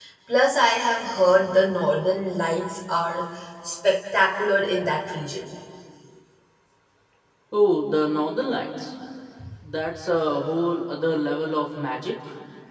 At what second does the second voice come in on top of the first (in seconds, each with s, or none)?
none